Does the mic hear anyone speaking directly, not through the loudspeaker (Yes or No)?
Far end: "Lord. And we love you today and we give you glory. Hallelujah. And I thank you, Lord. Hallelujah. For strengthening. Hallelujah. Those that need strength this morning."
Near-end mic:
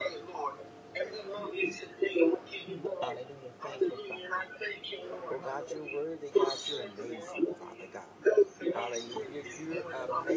Yes